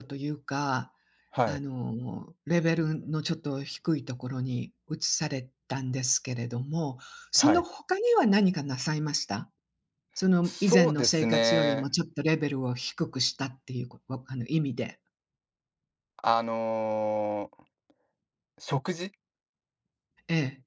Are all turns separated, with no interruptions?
No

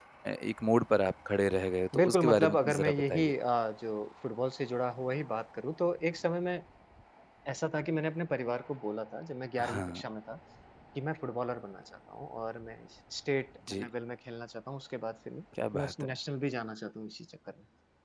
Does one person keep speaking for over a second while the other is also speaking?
Yes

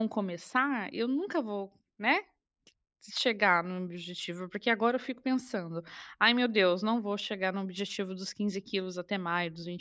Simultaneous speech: No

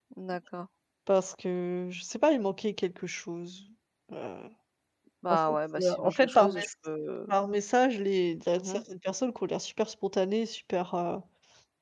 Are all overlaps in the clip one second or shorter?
No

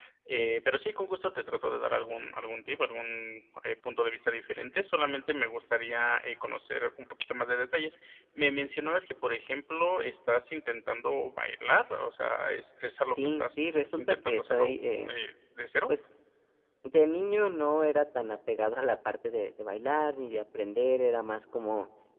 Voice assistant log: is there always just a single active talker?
No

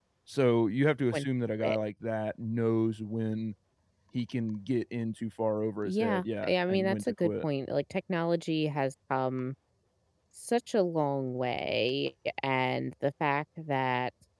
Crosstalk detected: Yes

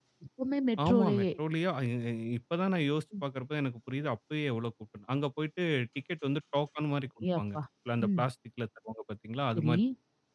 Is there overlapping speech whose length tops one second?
No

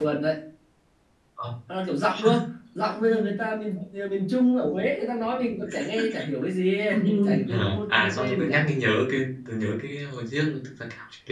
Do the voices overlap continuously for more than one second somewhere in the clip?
Yes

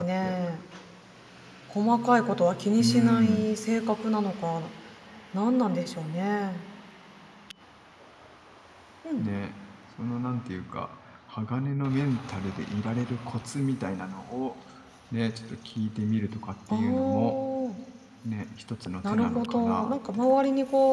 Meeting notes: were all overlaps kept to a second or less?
No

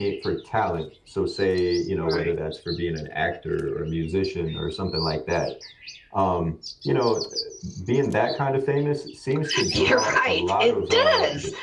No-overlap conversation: No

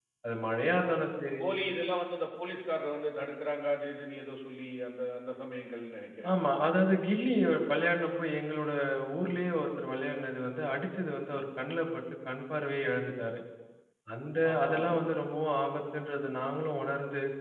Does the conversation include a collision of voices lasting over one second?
No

